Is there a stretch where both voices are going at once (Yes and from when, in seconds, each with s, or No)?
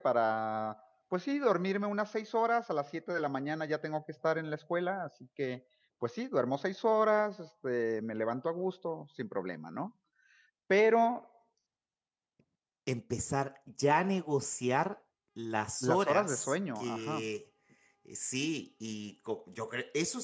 Yes, from 15.8 s